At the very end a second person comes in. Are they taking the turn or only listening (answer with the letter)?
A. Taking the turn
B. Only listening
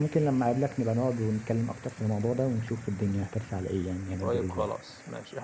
A